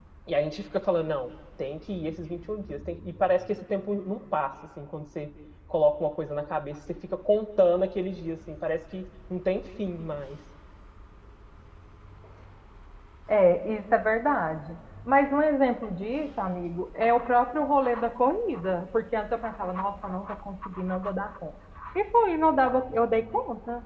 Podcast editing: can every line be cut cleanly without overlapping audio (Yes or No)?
Yes